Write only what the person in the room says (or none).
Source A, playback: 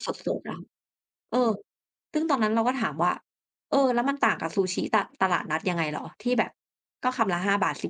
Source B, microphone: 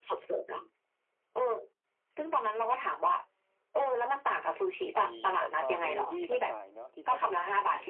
ไอ้แพลตฟอร์มดิลิเวอรีต่างๆเนาะที่เขาต้อง